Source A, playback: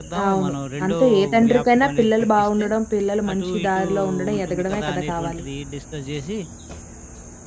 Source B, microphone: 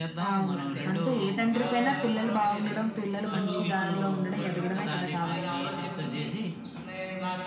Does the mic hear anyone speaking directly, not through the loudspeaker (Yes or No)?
Yes